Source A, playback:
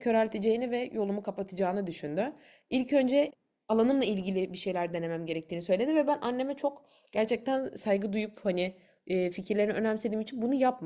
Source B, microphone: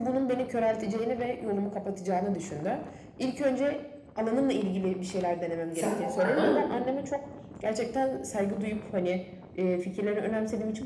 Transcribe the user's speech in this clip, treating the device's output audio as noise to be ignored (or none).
Sende var mı?